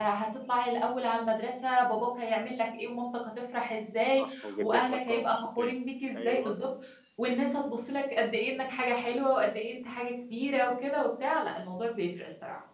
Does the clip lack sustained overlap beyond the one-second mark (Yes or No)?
No